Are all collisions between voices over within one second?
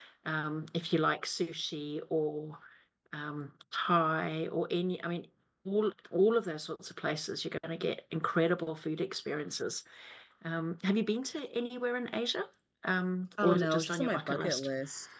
No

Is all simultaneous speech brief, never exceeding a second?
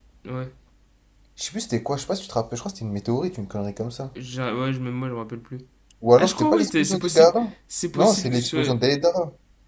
No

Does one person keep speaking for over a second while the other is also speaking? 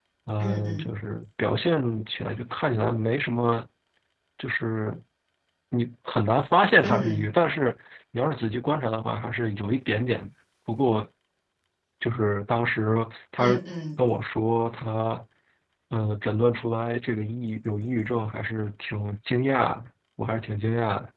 No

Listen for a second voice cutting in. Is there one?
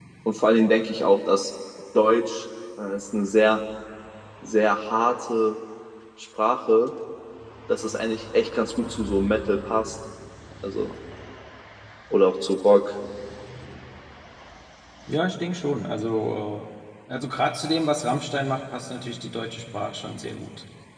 No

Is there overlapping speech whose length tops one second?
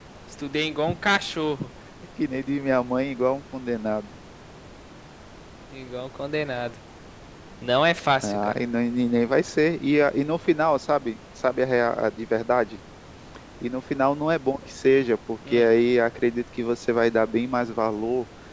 No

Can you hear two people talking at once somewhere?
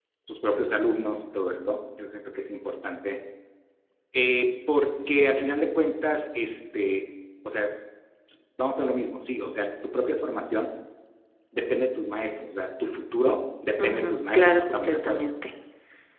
Yes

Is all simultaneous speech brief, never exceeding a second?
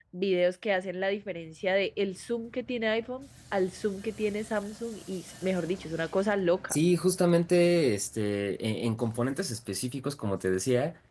Yes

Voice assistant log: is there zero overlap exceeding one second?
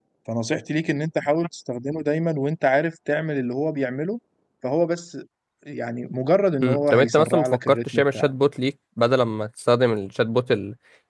No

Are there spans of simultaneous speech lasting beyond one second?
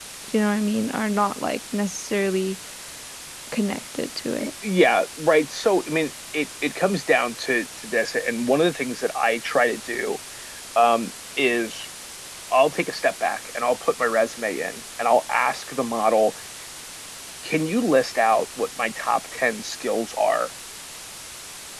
No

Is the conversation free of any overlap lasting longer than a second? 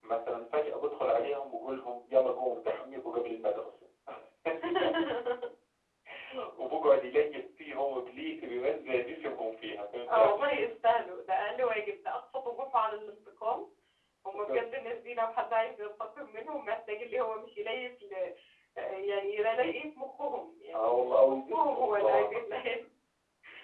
No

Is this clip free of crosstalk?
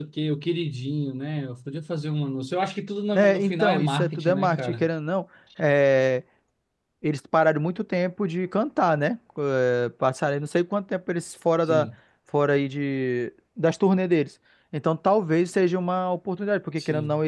No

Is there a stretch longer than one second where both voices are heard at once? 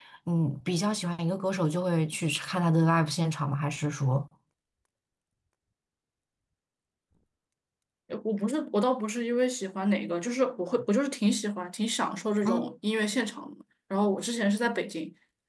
No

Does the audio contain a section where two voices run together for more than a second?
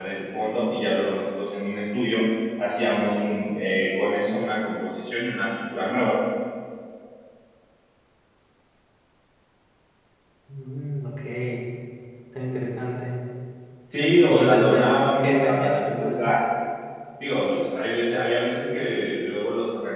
Yes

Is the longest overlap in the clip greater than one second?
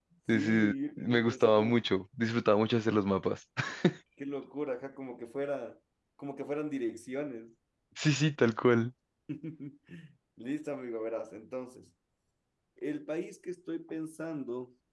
Yes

